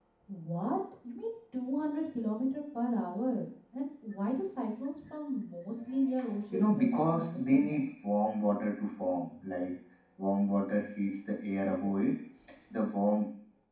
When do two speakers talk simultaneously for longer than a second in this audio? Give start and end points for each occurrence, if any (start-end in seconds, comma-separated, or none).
6.5-7.8